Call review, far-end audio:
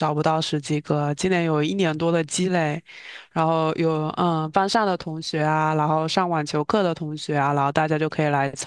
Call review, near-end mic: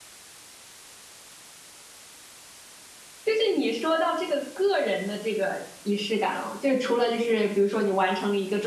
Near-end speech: present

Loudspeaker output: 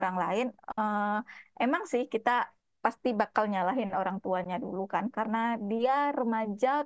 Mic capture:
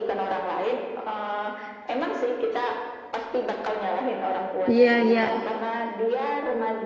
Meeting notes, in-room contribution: present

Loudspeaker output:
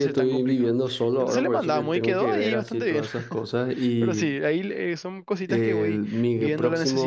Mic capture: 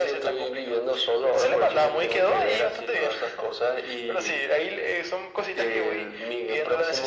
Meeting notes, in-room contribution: none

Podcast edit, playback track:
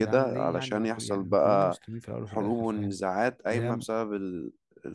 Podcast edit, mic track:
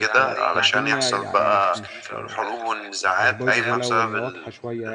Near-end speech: present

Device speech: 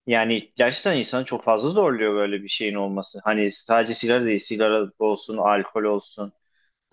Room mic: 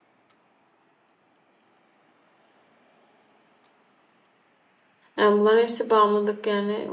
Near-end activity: present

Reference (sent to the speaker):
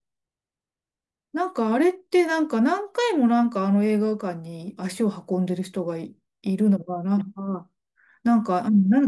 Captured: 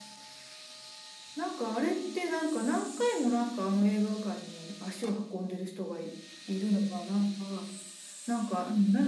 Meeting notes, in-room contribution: none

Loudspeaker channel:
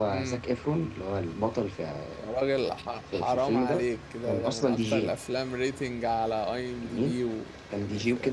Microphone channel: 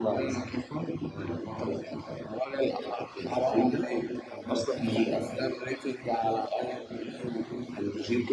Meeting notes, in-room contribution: none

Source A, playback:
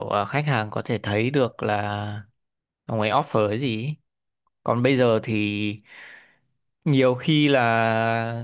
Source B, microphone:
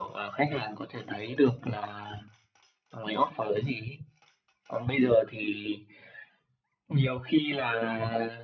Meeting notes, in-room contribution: none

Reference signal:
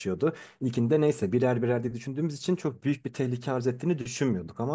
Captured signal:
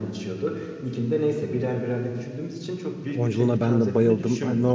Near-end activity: present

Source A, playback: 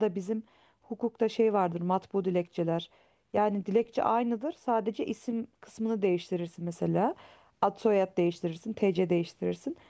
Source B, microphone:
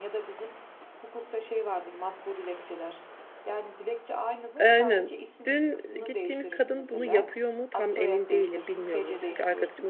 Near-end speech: present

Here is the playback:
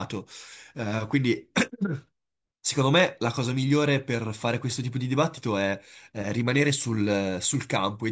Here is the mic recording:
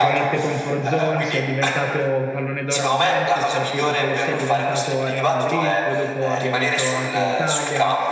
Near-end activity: present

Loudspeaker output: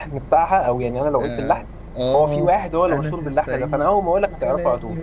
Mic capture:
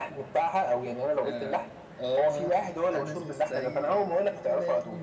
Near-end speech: present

